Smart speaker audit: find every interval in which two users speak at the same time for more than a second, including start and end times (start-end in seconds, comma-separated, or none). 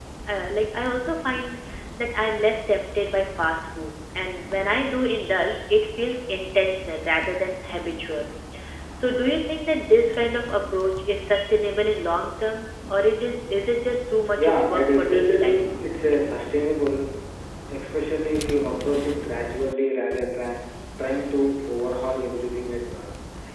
14.4-15.6